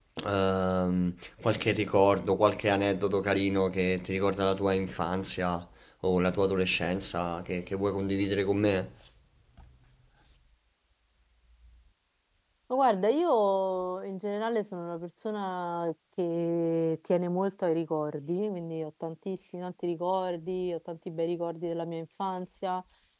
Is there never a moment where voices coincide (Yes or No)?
Yes